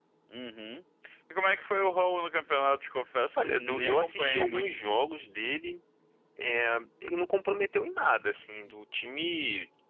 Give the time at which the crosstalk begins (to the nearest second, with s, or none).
3 s